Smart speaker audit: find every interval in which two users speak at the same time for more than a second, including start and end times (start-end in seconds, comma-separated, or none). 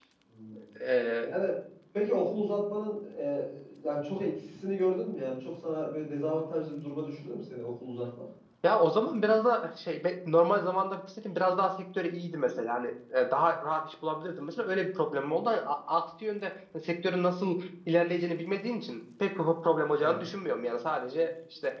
none